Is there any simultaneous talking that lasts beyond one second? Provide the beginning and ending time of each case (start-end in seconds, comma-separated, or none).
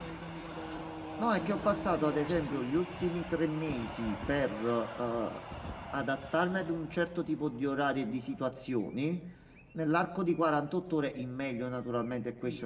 1.2-2.7